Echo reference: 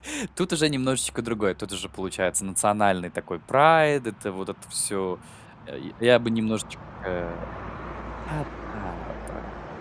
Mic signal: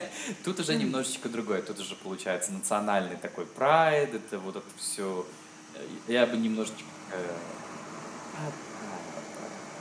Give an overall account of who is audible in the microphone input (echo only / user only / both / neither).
both